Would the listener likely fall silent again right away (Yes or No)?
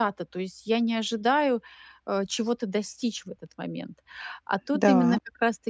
Yes